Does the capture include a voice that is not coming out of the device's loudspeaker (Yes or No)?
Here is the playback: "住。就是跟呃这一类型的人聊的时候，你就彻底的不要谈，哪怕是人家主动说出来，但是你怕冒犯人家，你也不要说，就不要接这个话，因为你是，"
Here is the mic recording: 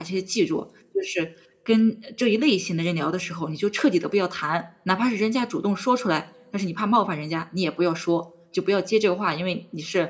No